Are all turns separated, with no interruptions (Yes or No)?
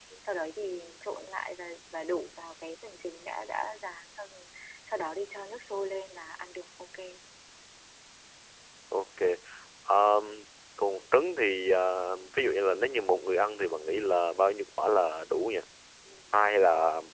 Yes